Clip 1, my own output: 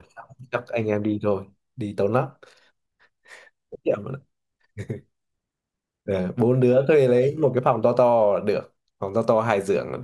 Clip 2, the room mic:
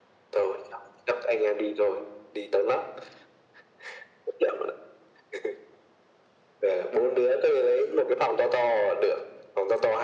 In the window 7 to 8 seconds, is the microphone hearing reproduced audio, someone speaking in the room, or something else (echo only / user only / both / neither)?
echo only